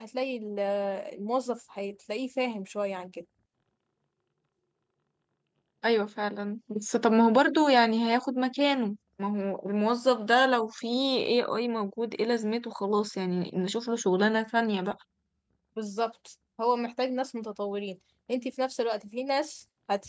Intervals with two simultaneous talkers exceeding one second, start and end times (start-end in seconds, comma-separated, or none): none